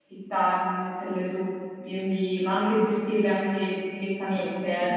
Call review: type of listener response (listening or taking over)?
taking over